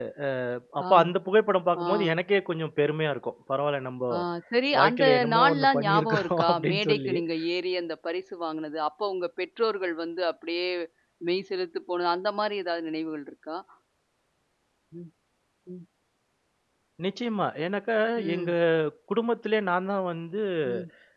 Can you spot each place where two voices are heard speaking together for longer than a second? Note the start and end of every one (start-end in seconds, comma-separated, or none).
4.8-7.1